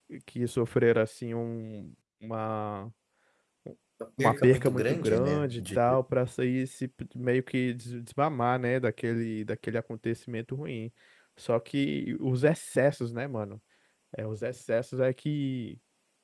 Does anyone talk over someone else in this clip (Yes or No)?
Yes